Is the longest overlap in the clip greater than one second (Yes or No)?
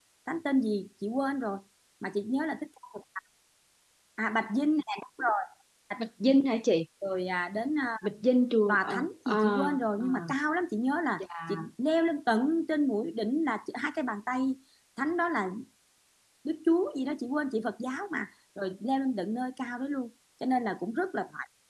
Yes